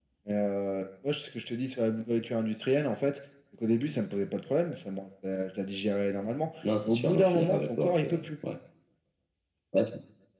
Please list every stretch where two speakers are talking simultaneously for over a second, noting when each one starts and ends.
6.8-8.3

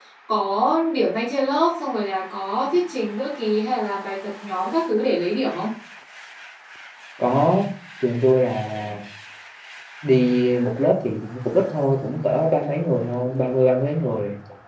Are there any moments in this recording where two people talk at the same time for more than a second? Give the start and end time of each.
none

